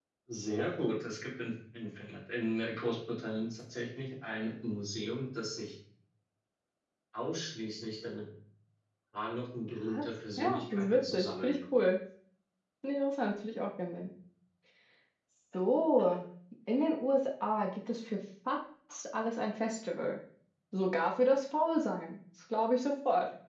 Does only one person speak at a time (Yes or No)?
No